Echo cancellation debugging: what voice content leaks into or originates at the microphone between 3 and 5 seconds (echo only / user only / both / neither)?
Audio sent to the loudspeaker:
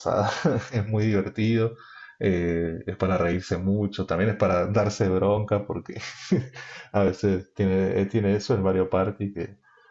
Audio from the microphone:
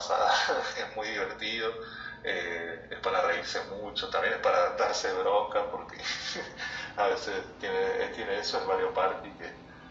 echo only